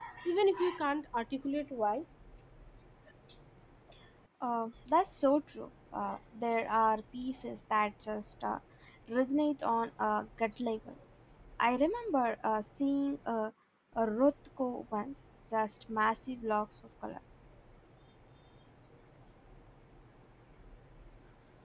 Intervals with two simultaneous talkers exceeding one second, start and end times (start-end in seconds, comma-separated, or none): none